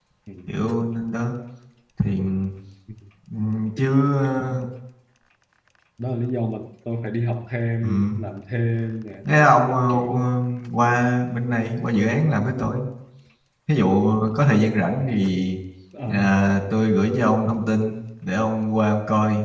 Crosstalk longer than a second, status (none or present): none